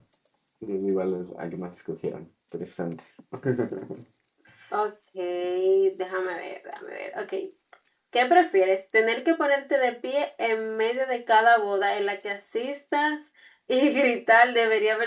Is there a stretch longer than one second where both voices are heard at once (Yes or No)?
No